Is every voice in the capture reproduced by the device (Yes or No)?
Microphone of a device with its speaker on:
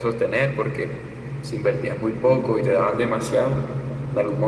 Yes